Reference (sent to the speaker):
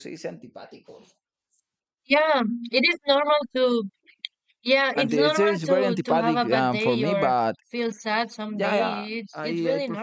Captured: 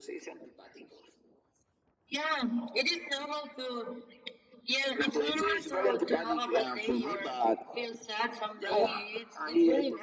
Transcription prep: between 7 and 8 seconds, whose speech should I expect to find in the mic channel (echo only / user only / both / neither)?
echo only